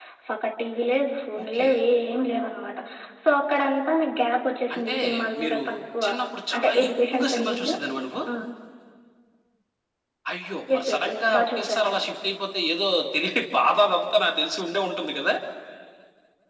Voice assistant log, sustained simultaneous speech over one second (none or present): present